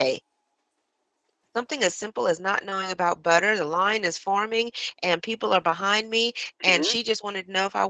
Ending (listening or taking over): listening